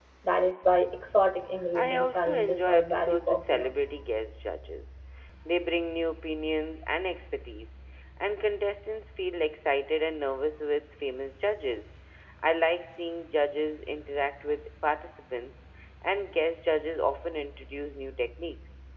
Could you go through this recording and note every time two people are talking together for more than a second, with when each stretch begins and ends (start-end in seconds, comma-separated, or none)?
1.8-3.7